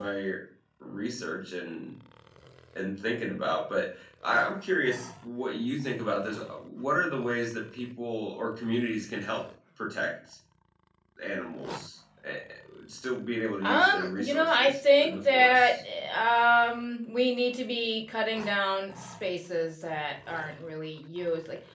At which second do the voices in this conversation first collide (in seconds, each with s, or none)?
13.6 s